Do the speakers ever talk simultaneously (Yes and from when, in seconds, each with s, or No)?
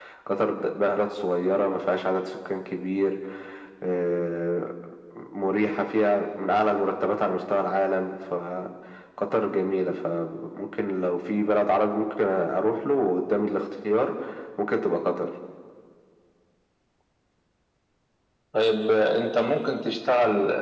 No